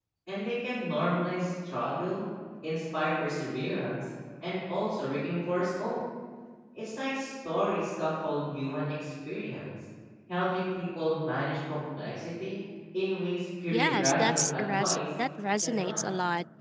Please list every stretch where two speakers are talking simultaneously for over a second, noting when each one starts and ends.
13.7-15.0

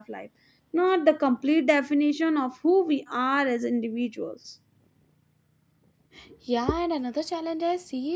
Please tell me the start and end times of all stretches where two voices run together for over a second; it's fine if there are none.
none

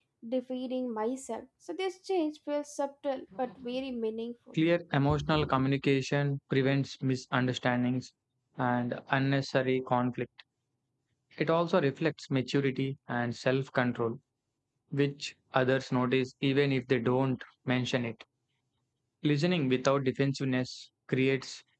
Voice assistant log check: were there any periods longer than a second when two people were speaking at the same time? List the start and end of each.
none

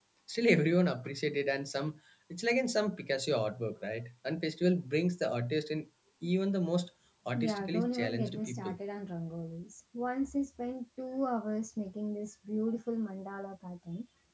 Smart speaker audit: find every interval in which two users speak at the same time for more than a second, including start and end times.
7.3-8.8

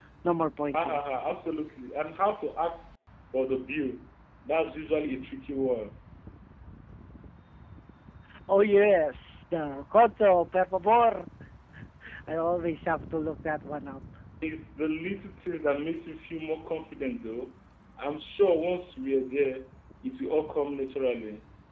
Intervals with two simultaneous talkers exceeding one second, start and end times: none

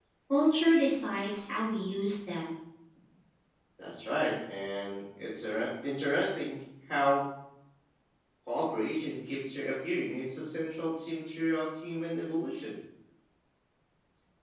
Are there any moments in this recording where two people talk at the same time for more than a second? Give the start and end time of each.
none

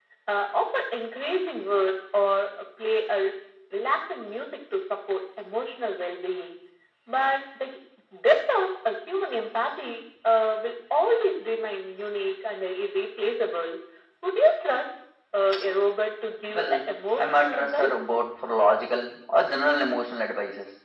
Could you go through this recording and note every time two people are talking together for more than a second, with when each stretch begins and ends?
16.5-18.0

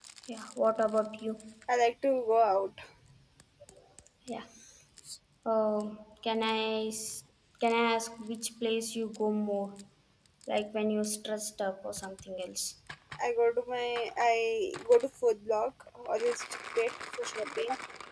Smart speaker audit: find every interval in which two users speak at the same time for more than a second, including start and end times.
none

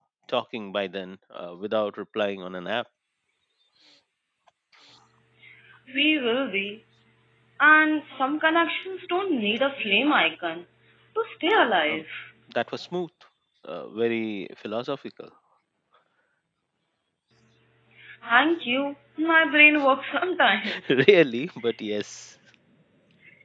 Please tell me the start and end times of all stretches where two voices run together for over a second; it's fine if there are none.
none

